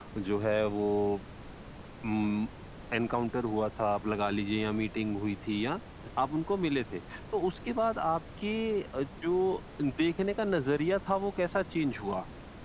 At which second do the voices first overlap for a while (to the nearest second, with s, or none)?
none